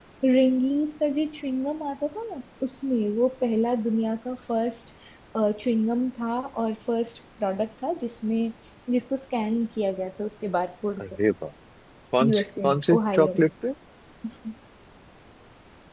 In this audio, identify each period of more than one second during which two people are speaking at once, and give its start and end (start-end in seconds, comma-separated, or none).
12.2-13.5